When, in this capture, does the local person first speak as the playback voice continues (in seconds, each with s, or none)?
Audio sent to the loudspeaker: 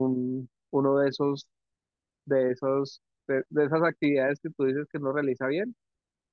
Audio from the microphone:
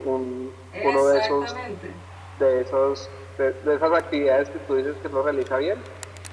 0.7 s